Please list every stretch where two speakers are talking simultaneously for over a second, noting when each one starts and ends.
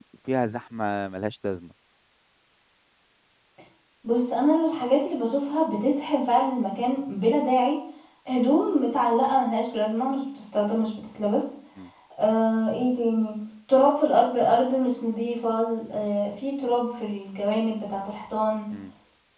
none

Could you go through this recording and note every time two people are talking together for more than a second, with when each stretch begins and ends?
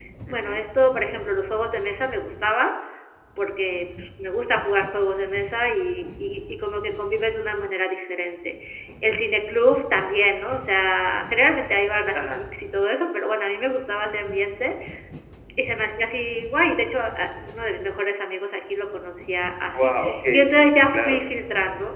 19.7-21.2

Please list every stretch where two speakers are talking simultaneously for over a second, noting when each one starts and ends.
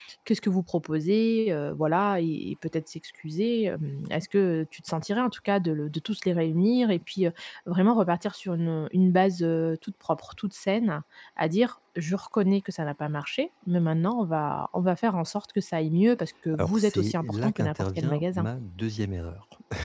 16.6-18.5

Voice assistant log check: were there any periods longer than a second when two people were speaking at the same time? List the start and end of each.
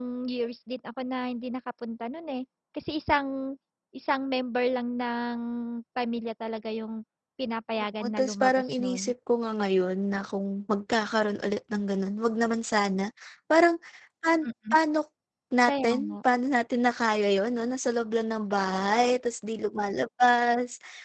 7.8-9.1

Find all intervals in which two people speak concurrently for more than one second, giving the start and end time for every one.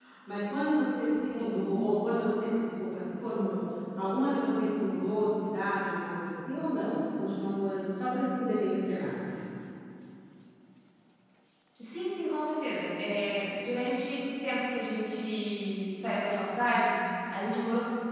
none

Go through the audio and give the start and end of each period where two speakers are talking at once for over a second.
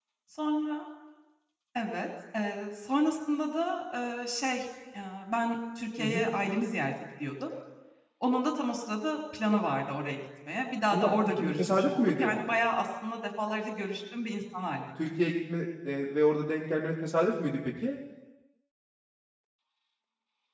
10.9-12.3

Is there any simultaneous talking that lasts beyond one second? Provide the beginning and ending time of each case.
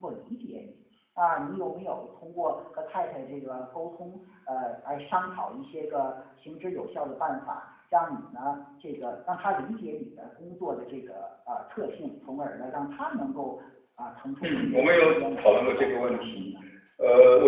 14.4-16.5

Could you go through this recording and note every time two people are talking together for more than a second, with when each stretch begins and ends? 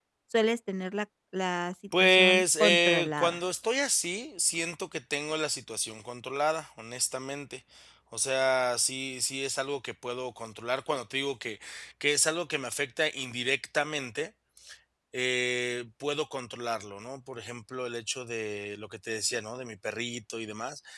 2.0-3.4

